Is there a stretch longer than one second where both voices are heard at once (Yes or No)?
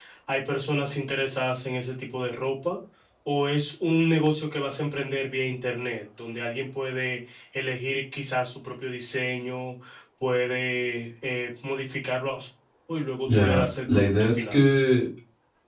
Yes